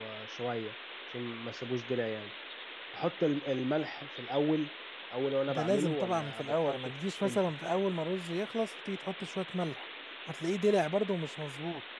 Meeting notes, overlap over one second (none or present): present